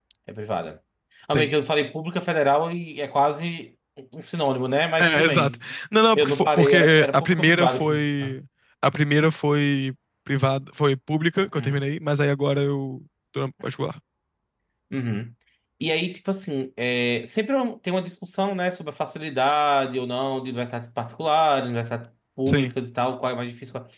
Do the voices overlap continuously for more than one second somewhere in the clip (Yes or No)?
Yes